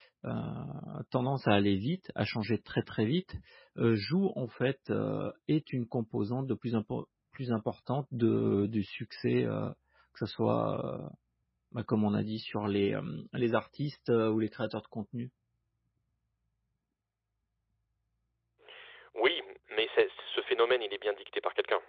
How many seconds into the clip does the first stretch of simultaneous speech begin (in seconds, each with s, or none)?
none